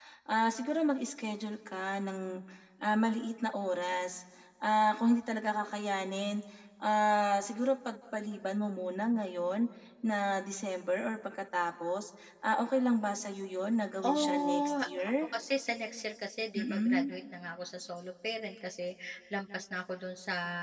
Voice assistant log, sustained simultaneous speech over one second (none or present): present